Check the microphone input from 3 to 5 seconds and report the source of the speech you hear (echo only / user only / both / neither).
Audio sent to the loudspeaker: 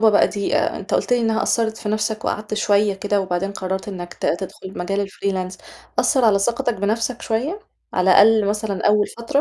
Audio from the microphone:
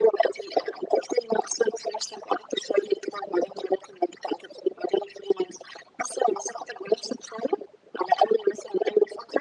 echo only